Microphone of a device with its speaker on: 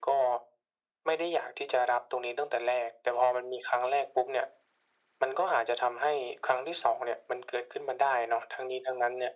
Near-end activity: none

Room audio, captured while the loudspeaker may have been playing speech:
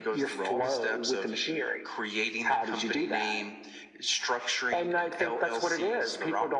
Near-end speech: none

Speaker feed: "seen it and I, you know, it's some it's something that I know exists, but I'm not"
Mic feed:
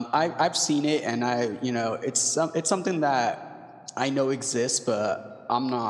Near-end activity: none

